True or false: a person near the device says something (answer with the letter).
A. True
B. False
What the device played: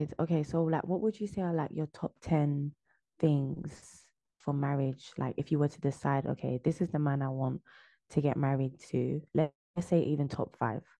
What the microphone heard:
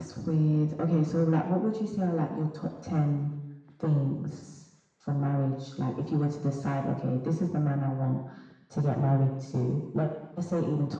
B